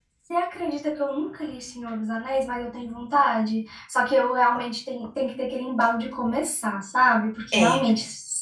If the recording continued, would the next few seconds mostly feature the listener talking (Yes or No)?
No